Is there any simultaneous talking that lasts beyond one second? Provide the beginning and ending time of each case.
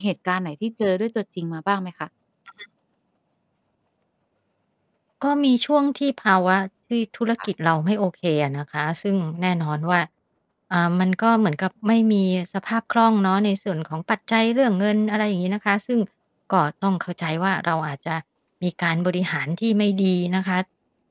none

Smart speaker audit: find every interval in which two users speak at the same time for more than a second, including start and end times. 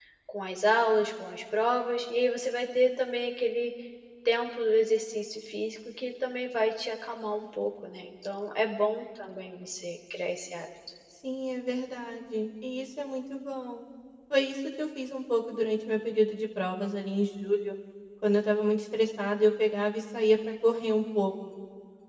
none

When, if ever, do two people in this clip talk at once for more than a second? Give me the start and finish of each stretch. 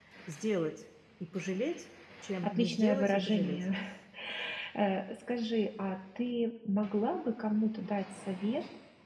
2.4-3.6

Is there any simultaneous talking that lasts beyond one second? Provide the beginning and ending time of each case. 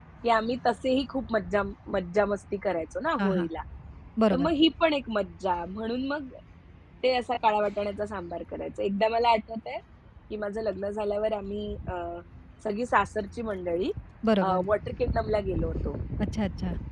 none

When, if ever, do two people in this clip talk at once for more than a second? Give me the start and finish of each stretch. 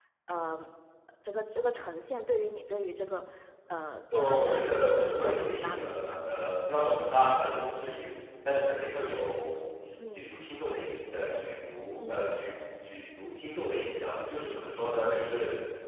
4.1-6.3

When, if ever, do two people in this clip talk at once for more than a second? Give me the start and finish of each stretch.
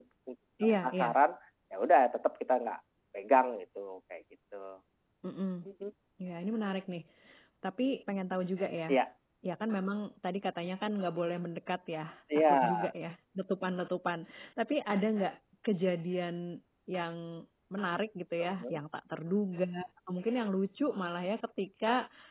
none

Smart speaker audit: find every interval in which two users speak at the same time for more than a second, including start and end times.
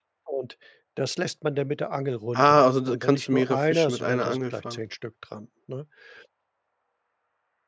2.4-4.8

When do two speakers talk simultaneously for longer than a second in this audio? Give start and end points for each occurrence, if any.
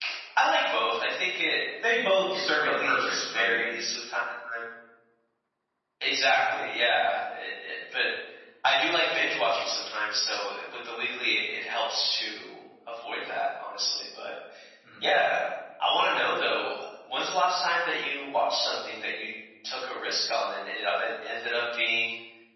2.3-3.6

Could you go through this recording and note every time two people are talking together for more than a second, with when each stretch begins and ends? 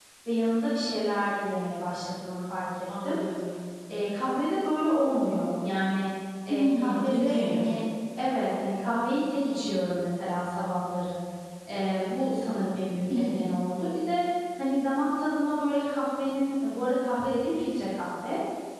6.5-7.7

